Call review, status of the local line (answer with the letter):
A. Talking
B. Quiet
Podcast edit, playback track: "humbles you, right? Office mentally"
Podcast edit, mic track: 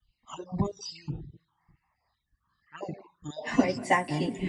A